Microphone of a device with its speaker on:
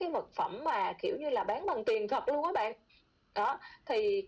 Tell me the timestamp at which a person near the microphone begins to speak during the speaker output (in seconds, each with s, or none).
none